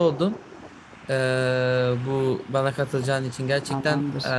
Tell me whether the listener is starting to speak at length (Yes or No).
No